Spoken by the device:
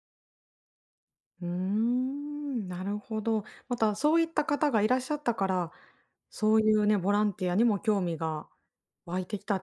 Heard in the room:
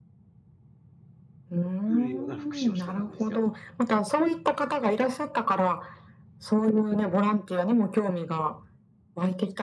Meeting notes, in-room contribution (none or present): present